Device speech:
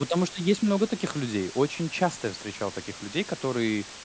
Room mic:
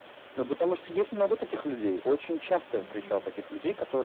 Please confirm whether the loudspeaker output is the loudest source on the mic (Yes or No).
Yes